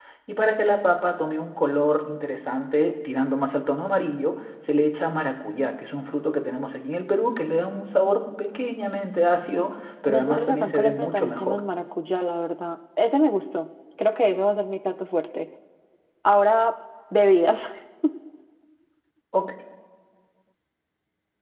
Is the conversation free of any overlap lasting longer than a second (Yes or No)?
No